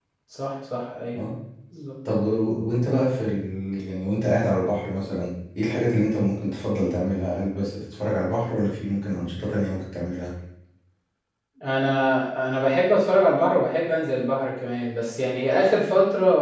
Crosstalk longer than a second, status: none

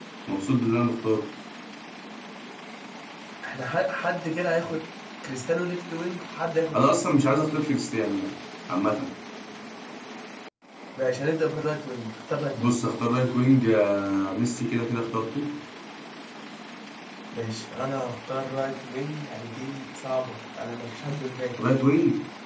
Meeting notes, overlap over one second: none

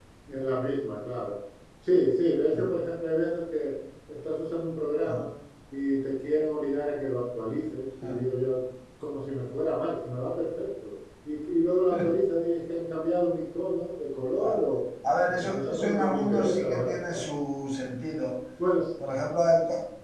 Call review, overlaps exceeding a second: present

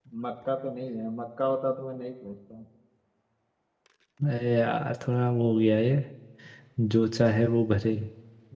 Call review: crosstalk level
none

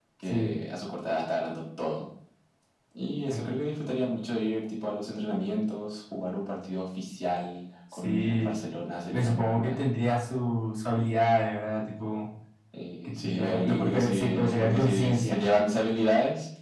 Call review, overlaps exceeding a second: present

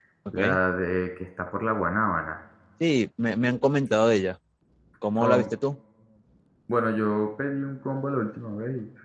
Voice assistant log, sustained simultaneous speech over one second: none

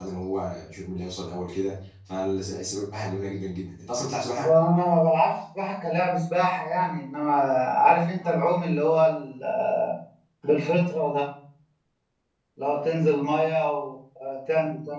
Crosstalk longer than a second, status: none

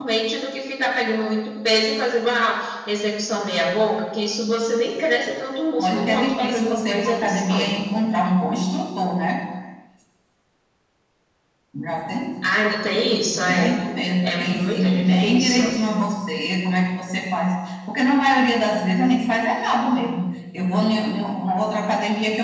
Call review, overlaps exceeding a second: present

